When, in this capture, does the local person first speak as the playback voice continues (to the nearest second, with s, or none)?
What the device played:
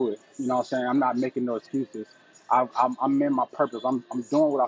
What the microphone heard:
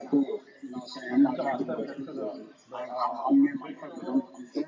1 s